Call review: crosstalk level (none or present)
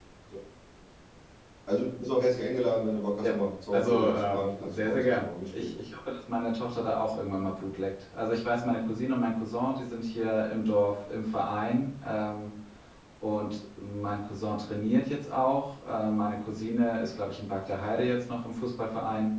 present